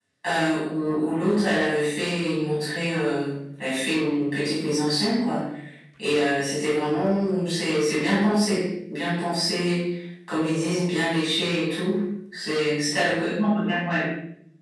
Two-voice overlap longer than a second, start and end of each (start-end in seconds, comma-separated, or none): none